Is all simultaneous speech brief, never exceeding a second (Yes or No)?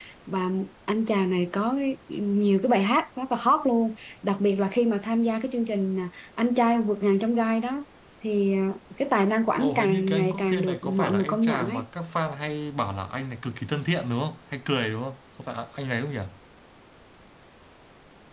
No